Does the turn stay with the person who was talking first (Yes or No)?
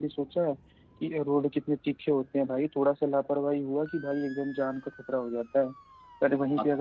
Yes